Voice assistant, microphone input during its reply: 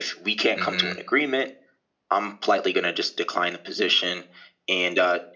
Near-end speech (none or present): present